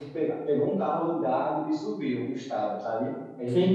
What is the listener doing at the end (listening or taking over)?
listening